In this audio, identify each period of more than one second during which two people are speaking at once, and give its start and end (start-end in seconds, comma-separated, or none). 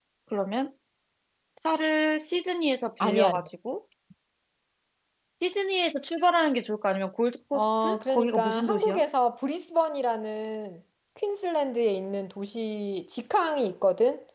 7.5-9.0